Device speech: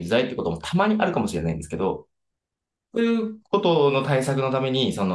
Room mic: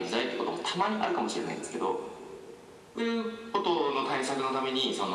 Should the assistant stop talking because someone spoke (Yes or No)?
No